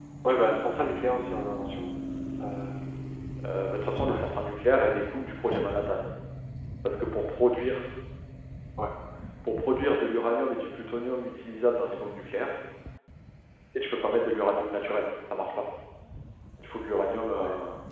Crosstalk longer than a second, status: none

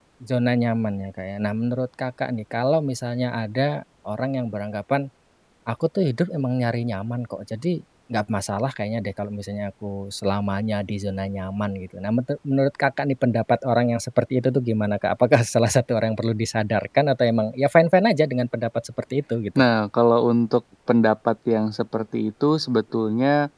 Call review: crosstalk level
none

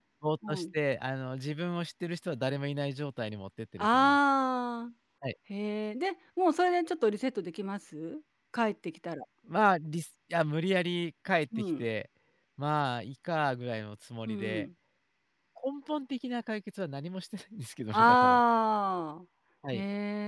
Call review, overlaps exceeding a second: none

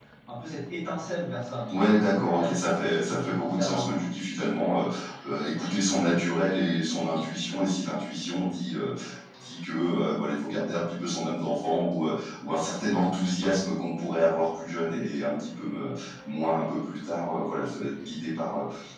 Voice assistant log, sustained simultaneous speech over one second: present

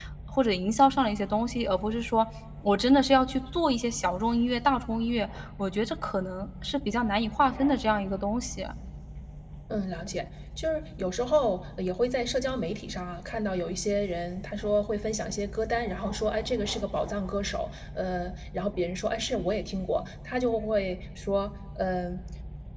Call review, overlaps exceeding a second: none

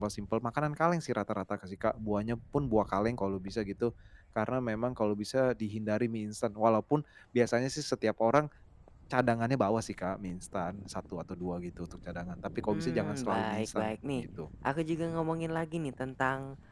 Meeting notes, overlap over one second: present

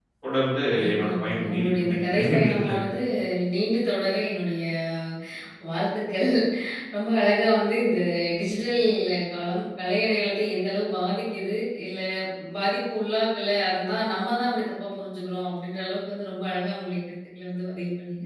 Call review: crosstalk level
present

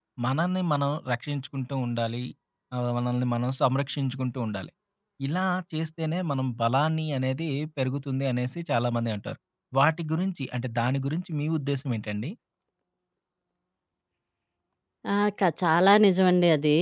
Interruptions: none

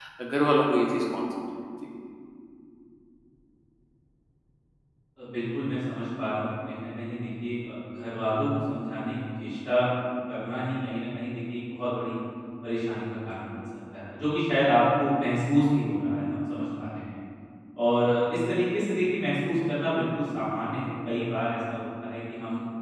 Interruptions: none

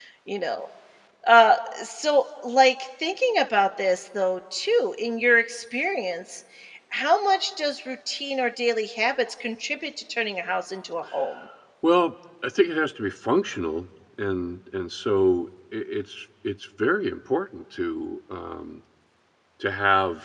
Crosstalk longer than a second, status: none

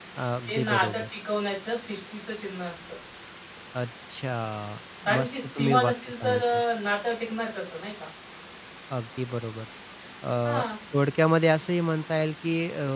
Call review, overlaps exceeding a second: present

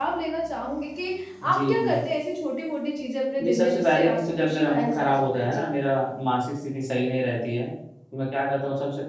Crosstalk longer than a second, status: present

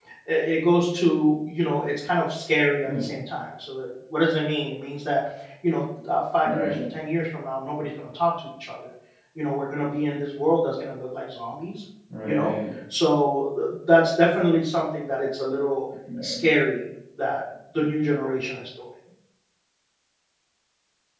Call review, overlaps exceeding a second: none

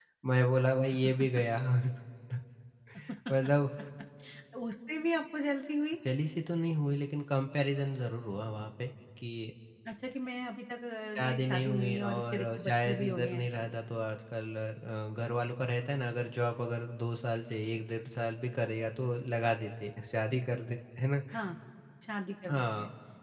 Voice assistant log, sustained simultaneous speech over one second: present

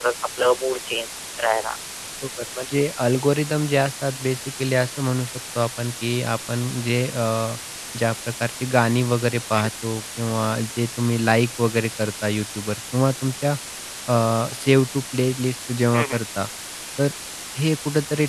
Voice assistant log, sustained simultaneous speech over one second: none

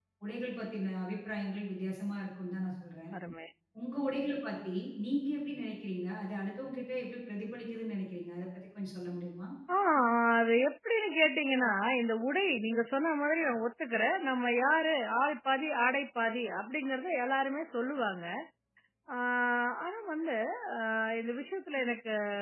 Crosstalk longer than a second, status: none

